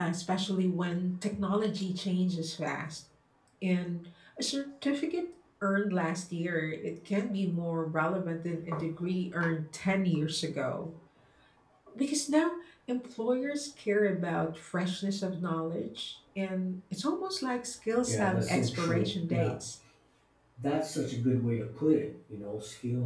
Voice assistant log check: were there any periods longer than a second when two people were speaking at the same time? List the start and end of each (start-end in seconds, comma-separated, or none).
18.1-19.5